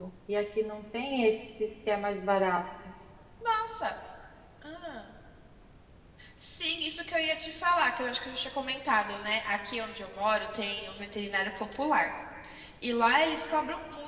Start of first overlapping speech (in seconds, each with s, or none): none